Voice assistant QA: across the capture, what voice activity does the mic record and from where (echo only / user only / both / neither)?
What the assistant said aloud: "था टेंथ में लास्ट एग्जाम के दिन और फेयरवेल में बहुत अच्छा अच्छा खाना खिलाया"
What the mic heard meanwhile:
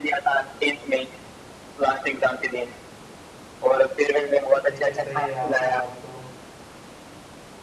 both